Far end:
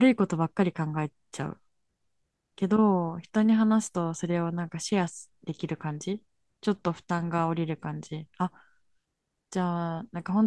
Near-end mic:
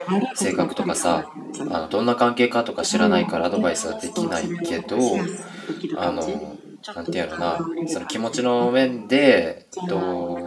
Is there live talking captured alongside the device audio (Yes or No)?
Yes